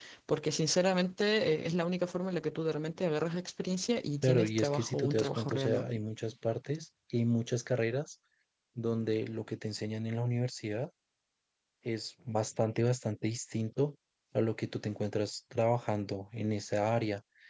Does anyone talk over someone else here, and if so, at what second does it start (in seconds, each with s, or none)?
4.2 s